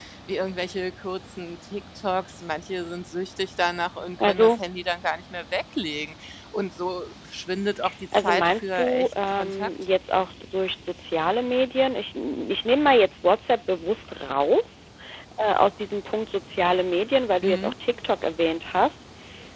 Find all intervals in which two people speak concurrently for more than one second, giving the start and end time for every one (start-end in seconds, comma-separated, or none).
8.1-9.7